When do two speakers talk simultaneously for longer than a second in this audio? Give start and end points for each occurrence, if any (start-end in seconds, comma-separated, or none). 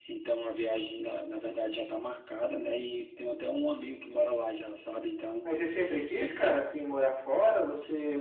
none